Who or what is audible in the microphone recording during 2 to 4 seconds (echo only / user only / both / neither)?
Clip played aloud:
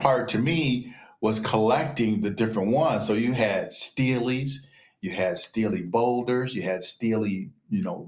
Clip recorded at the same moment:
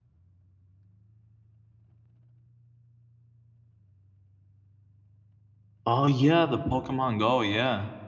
neither